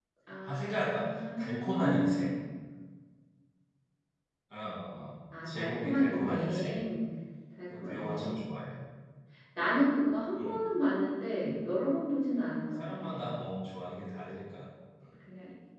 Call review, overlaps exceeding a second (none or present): present